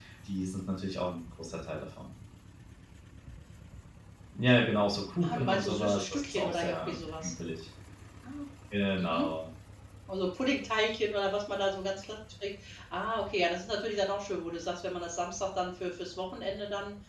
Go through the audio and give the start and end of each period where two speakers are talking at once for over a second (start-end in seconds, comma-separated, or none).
5.2-7.3